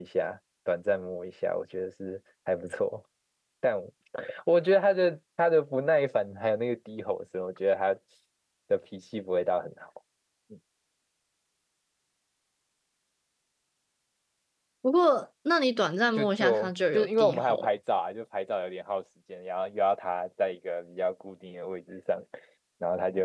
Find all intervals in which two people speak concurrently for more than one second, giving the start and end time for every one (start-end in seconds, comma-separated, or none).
16.1-17.7